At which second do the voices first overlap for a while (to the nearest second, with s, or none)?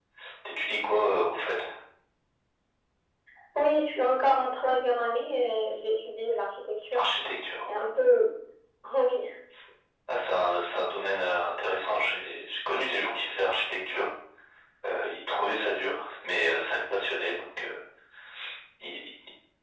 none